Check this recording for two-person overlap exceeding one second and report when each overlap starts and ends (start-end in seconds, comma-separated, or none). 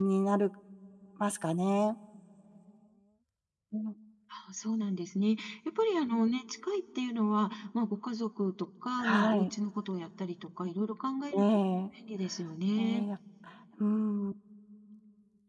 none